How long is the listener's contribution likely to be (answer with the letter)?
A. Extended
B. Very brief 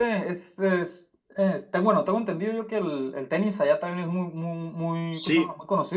A